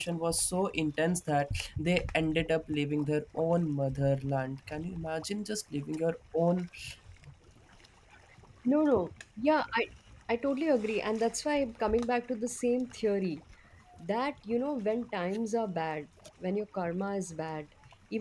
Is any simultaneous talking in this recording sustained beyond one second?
No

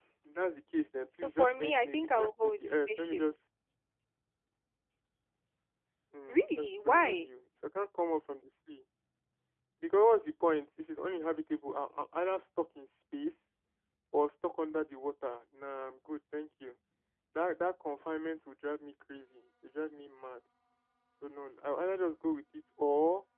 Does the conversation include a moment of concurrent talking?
Yes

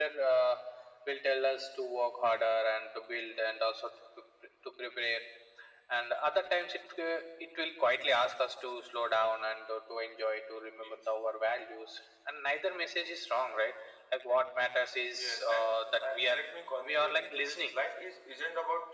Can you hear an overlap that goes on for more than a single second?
Yes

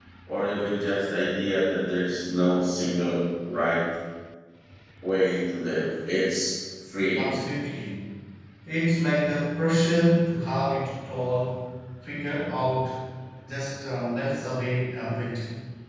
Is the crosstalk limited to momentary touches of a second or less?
Yes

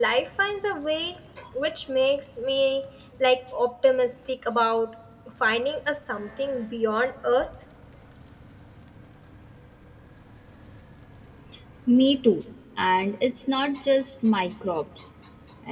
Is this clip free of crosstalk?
Yes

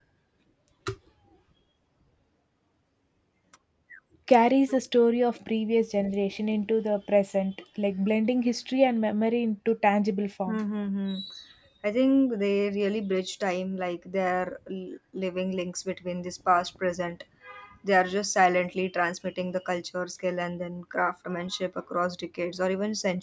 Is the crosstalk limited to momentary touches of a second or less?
Yes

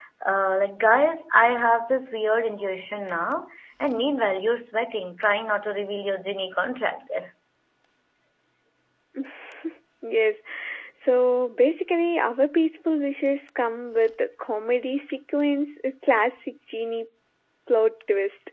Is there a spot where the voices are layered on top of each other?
No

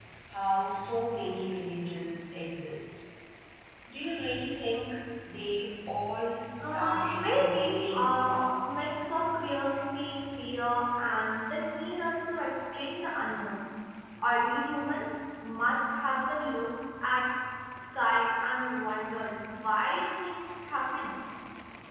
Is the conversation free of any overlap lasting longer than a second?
No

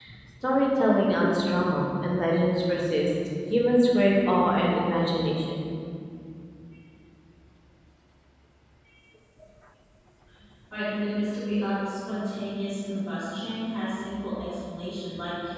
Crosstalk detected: No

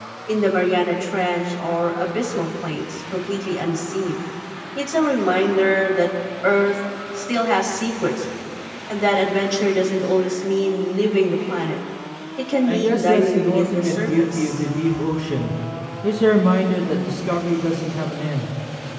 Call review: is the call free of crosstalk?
No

